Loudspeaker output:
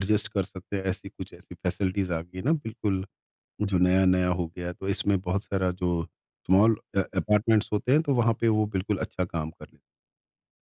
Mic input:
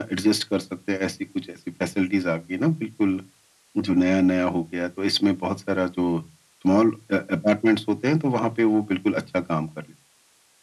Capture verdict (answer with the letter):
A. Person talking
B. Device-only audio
B